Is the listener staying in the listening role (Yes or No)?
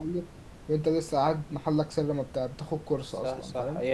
No